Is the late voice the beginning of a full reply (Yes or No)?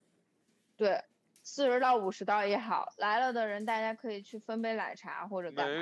Yes